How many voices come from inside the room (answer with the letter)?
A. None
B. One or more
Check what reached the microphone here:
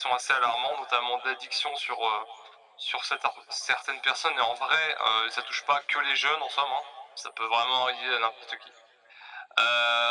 A